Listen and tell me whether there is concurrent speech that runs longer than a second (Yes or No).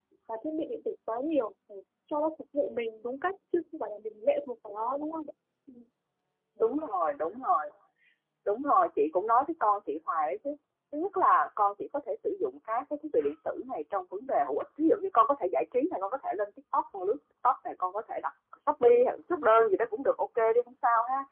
No